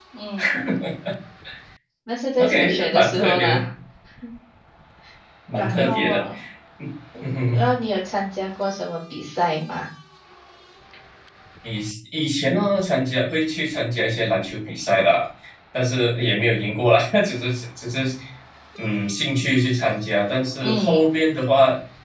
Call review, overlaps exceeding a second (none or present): present